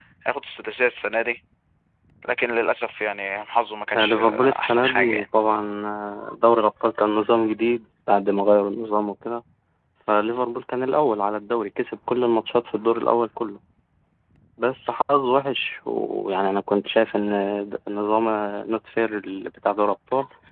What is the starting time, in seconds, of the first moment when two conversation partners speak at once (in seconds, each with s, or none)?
3.9 s